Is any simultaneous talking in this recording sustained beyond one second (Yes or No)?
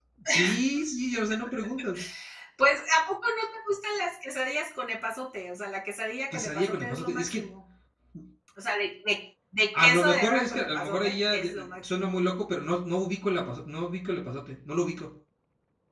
Yes